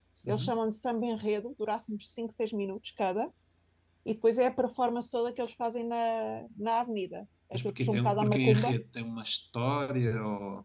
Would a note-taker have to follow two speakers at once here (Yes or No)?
Yes